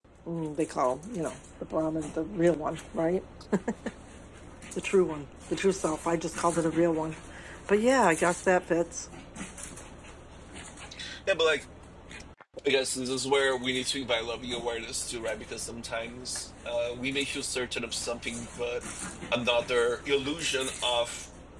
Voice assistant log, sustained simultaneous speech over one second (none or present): none